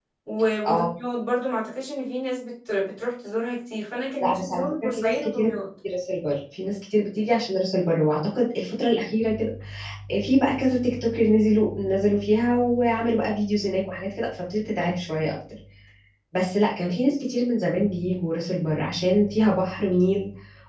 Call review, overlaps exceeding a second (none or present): present